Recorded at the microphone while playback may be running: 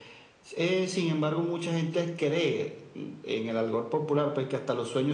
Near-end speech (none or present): none